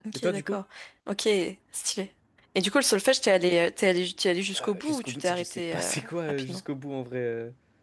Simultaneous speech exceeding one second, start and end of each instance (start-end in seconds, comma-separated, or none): 4.5-5.9